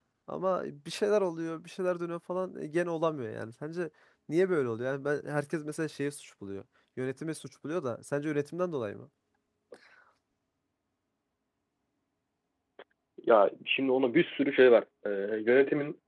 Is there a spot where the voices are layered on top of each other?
No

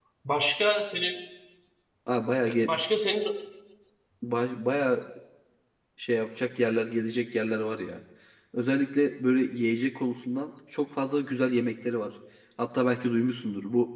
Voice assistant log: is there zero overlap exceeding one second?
Yes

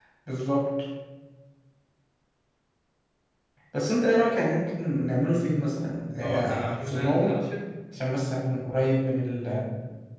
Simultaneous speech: Yes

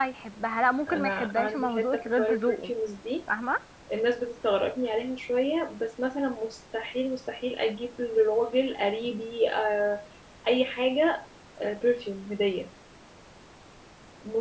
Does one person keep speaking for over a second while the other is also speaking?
Yes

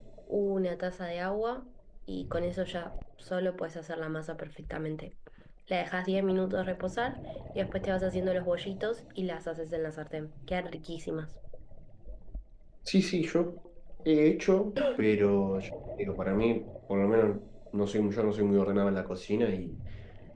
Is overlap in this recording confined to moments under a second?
Yes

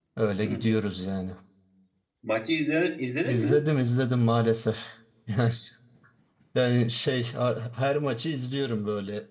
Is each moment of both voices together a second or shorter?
Yes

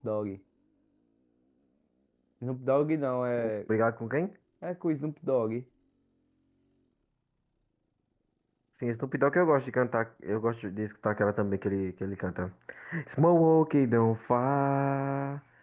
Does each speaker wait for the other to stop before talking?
Yes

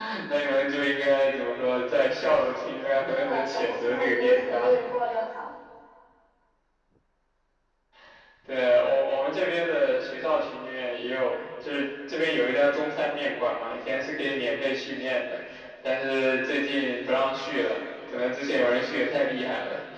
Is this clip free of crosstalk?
No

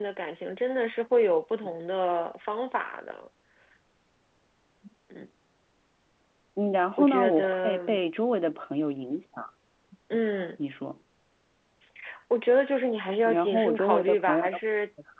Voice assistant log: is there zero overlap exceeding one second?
No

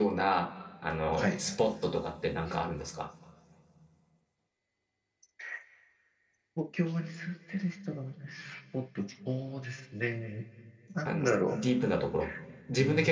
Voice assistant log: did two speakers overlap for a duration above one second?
No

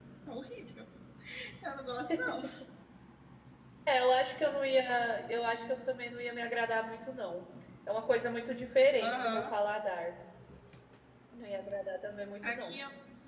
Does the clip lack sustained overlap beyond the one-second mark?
Yes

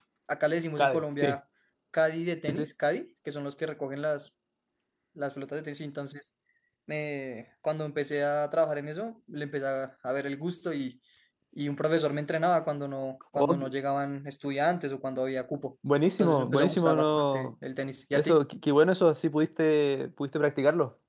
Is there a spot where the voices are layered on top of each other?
Yes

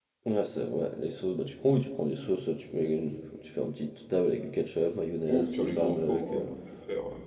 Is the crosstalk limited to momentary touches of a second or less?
No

